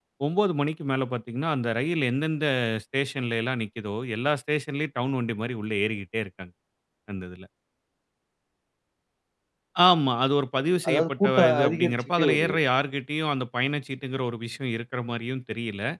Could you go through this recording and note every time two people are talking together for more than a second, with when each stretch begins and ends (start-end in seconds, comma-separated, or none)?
10.9-12.6